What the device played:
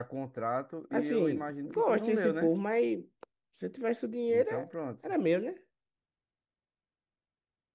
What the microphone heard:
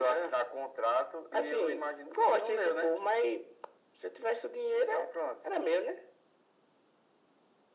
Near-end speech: none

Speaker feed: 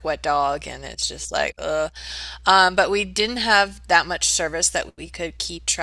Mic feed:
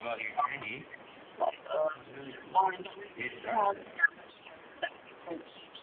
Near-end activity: present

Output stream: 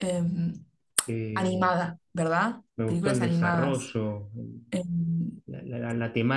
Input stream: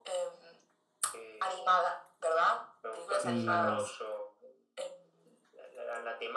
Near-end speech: present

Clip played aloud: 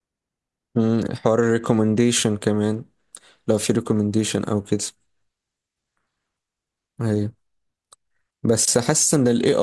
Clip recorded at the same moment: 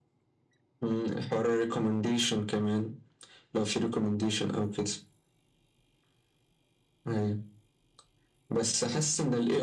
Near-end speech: none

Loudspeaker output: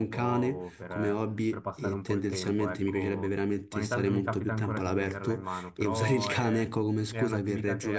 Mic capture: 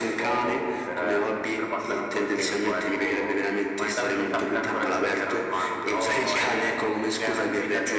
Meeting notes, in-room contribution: none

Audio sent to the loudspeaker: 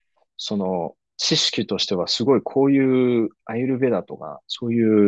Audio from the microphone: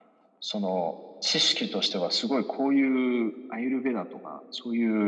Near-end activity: none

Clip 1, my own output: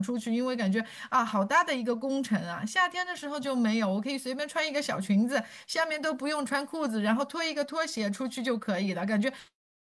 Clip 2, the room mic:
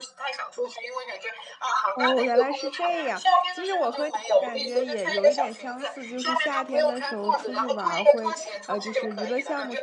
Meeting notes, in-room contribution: present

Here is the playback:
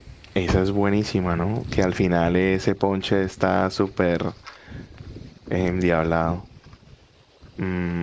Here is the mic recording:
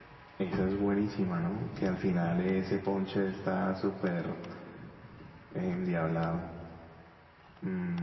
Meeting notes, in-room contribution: none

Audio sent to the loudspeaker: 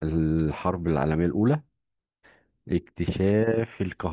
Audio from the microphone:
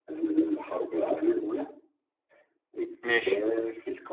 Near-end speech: present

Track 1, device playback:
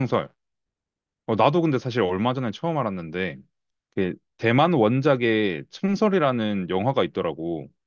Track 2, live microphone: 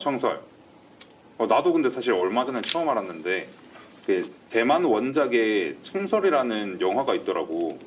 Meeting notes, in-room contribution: none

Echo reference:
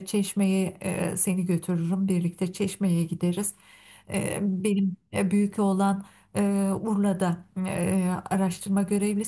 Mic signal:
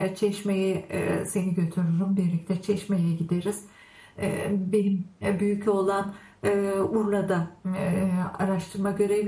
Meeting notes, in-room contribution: none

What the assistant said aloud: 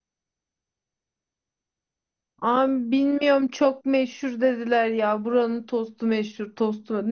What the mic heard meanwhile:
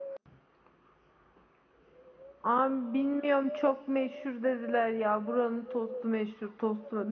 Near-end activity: none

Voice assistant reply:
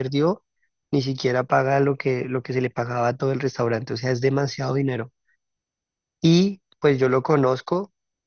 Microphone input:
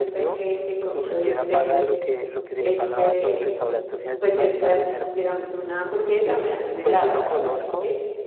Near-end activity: present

